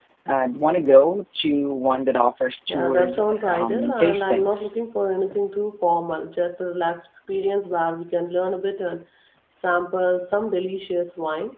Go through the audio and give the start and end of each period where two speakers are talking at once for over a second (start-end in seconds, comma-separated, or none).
2.7-4.7